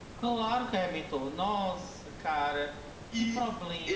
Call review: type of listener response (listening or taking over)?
taking over